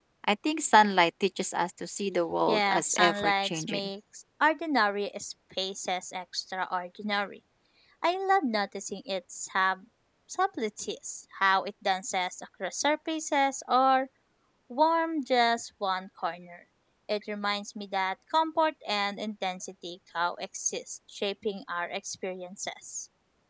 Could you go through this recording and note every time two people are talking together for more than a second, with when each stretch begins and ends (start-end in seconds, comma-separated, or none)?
2.5-3.9